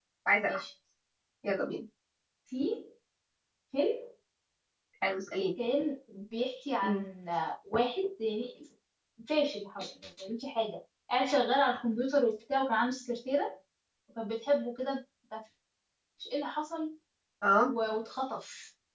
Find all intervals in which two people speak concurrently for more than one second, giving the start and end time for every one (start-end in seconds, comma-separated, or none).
none